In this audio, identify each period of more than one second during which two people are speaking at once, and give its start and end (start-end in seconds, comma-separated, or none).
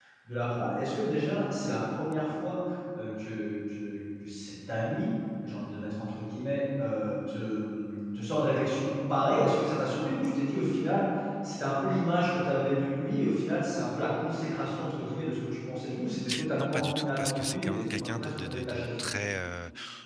16.6-18.9